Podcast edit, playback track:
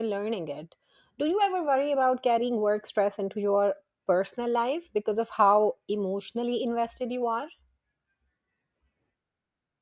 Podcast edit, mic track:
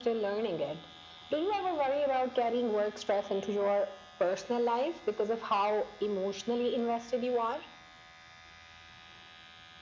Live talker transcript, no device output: none

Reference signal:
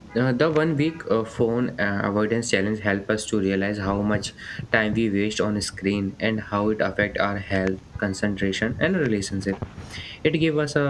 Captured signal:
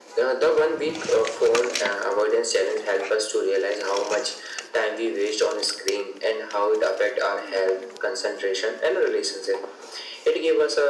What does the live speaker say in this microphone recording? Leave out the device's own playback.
none

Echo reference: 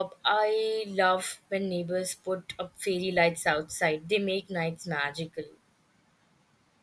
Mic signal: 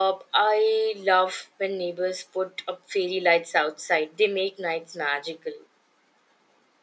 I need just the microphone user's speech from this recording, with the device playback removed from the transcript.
none

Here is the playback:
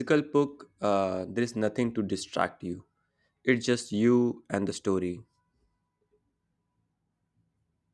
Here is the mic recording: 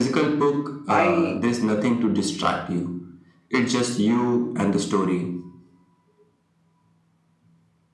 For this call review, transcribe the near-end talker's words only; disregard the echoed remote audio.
I

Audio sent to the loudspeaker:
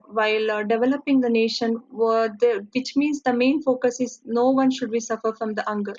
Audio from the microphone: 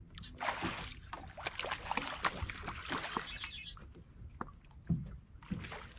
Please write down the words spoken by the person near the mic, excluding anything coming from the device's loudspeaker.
none

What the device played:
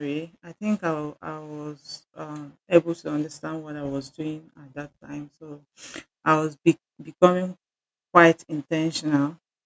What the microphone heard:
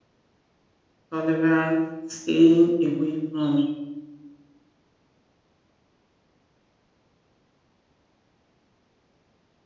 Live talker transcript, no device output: tolerance, staying away from

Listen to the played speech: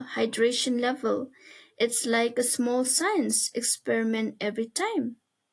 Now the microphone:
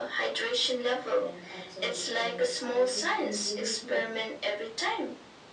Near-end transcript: and observe details I would usually ignore,

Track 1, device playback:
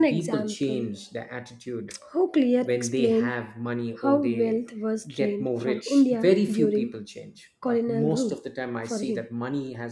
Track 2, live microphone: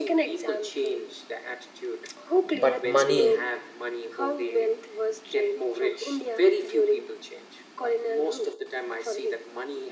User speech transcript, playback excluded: But money,

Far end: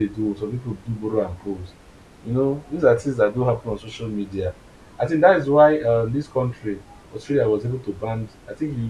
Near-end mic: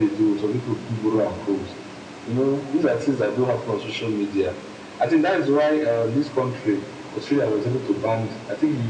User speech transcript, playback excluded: none

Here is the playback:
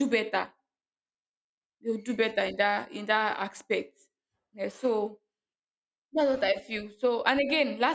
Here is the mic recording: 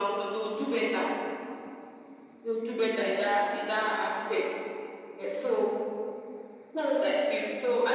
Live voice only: none

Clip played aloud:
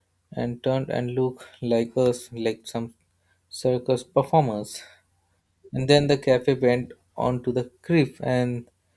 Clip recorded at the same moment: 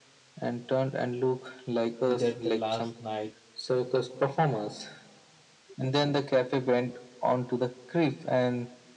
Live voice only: you that the last night

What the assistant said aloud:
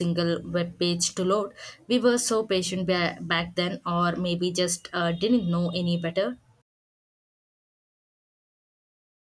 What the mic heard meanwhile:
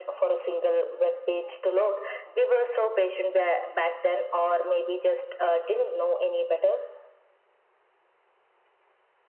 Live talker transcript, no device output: none

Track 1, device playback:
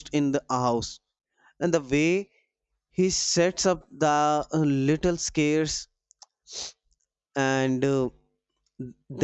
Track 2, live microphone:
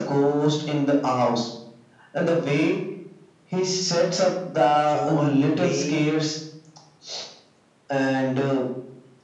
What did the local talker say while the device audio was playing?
you are playing

